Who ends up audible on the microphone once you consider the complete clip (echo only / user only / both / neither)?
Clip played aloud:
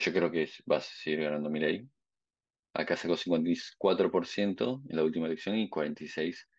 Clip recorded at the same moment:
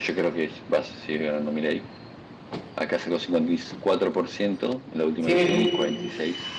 both